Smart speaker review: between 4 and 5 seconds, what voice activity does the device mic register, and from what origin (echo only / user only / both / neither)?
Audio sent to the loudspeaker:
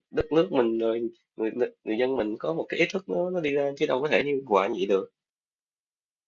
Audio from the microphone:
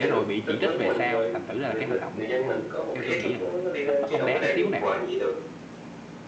both